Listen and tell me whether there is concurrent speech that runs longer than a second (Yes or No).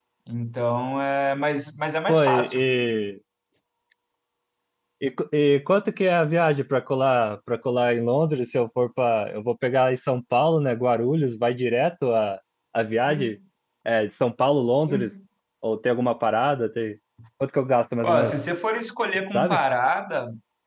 No